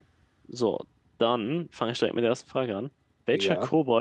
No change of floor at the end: Yes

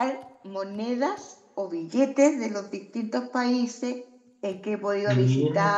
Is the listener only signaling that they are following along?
Yes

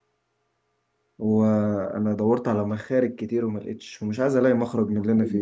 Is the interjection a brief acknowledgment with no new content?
No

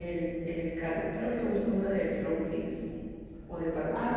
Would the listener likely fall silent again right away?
No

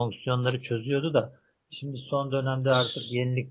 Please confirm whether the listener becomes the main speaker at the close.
No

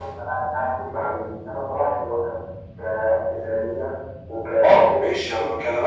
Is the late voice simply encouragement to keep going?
No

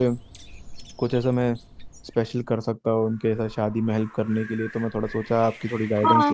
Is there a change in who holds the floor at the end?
Yes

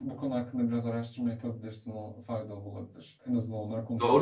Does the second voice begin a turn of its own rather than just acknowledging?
Yes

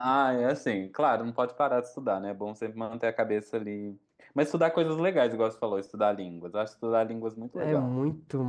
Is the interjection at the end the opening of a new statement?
Yes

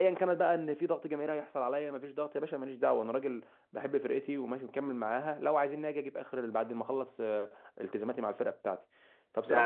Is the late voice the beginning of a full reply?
Yes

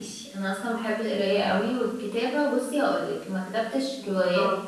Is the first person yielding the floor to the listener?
No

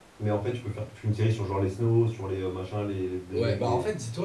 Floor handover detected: Yes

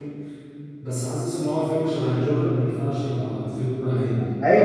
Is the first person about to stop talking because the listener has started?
Yes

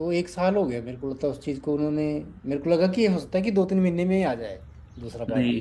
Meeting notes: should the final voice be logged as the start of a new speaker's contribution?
Yes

